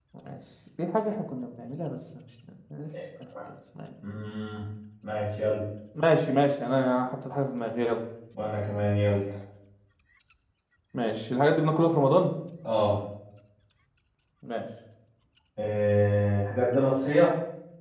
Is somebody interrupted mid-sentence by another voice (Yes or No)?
No